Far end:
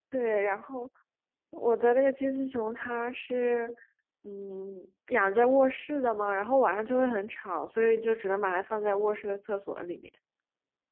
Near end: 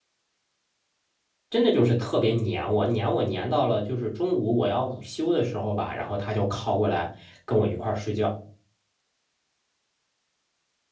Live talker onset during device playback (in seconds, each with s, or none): 1.5 s